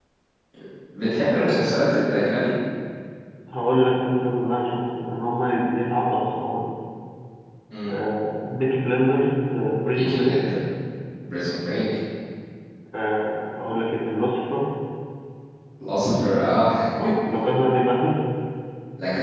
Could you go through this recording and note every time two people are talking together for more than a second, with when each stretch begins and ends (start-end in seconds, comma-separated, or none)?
none